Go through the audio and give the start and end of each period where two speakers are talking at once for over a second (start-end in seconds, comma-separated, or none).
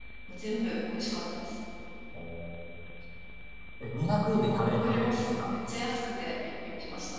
4.2-5.5